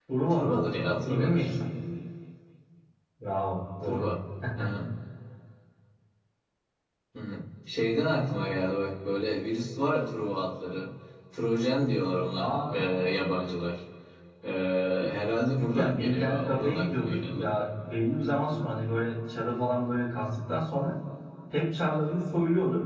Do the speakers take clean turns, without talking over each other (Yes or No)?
No